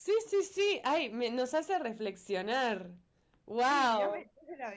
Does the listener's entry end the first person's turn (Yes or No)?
Yes